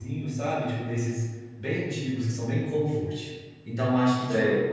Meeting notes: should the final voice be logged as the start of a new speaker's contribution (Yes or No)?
No